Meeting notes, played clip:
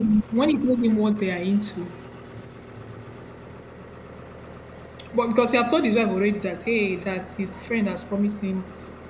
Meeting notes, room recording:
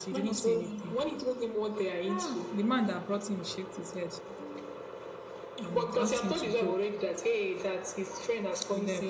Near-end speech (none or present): present